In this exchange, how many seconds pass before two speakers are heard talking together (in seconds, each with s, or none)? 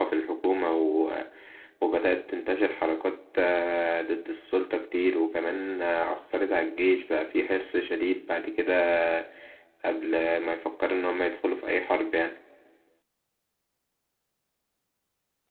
none